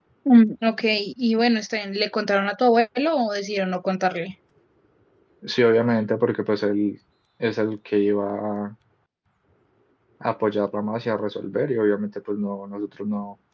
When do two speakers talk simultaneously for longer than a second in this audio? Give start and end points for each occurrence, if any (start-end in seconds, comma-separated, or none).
none